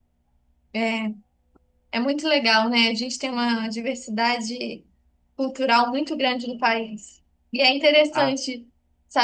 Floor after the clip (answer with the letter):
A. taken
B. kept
B